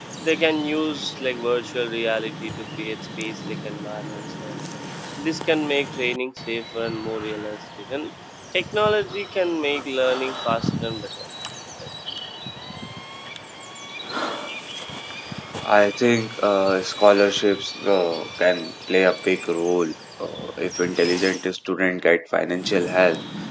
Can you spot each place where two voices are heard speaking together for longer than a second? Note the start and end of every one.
none

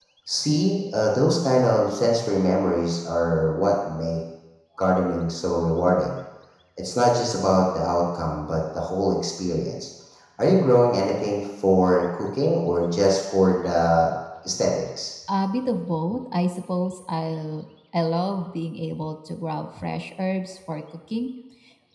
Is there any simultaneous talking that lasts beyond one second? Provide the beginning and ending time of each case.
none

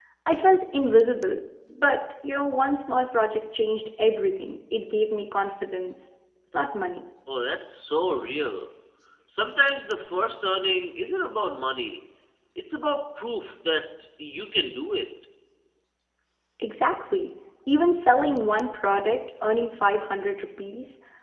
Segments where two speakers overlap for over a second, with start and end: none

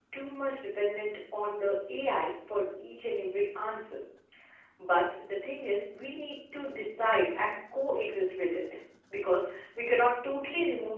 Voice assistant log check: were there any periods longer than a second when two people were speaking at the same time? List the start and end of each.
none

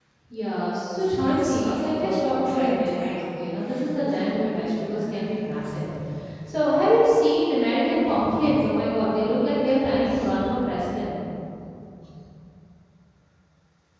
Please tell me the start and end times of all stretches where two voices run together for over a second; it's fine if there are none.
1.1-3.4

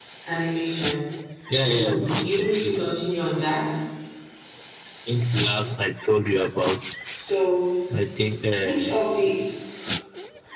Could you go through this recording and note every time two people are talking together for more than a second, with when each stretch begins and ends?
1.5-2.9

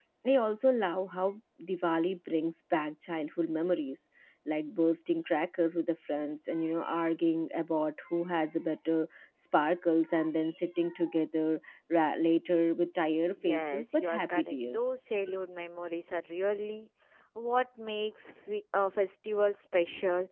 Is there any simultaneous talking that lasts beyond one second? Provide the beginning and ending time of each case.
13.3-15.0

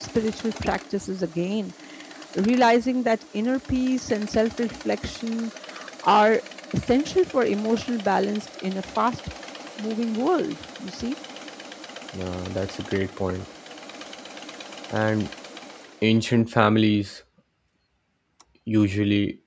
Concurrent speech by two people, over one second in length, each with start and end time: none

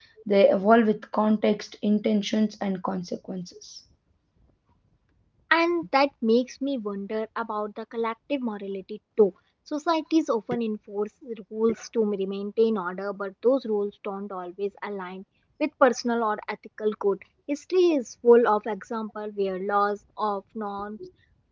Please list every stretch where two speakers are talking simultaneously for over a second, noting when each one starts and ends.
none

